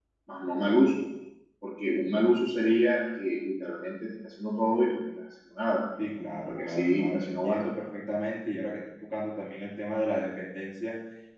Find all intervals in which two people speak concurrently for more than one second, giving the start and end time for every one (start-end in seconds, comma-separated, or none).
6.5-7.8